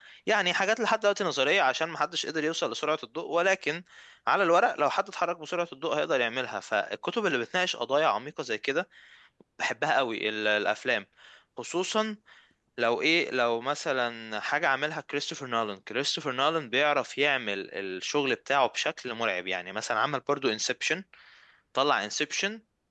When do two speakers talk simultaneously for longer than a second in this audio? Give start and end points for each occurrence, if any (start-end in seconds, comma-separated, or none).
none